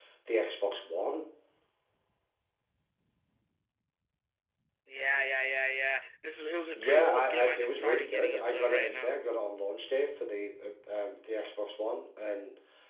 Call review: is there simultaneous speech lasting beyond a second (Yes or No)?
Yes